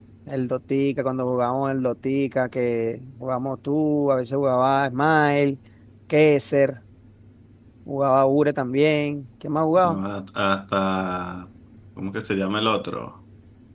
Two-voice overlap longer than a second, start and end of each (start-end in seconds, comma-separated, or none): none